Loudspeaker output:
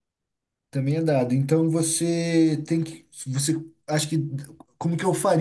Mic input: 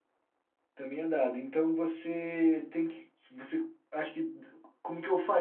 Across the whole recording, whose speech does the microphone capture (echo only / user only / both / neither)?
echo only